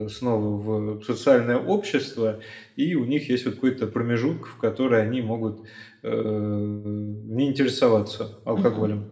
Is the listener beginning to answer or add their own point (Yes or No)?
Yes